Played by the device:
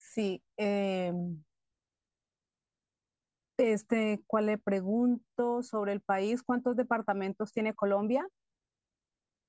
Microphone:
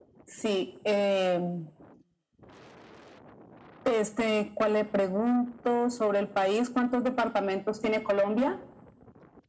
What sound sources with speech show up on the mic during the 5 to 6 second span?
echo only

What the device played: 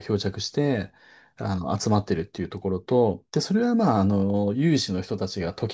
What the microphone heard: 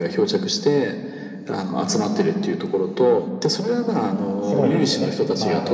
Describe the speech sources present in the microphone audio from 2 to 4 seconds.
echo only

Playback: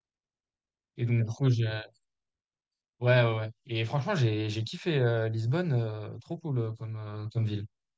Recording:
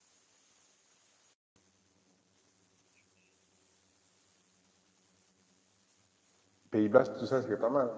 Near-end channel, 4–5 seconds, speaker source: neither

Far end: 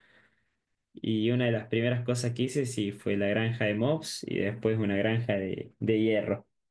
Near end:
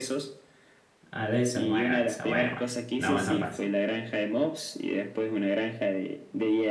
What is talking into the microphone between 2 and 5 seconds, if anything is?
both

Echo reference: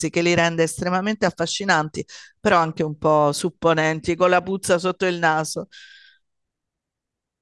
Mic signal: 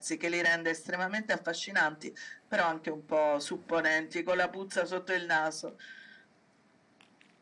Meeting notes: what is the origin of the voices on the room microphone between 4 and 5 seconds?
echo only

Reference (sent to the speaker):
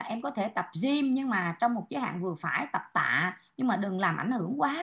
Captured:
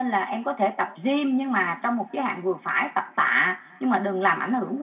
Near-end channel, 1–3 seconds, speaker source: echo only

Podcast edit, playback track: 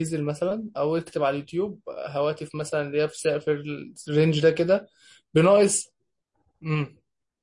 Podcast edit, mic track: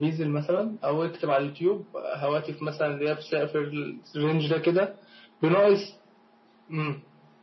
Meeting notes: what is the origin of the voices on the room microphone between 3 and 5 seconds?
echo only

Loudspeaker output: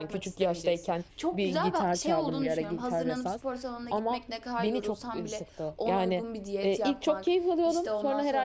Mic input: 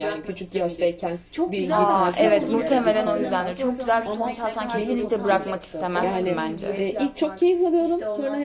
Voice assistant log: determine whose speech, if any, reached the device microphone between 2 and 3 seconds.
both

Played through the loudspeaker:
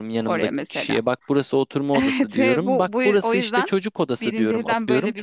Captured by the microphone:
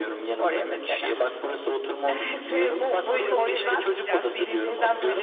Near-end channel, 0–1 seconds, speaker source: echo only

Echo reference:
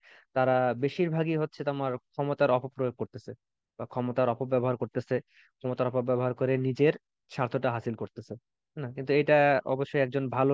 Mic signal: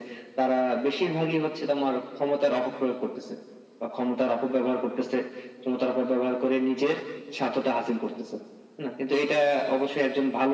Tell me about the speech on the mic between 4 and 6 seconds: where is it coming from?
echo only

